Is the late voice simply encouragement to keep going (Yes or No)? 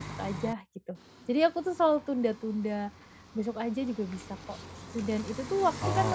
Yes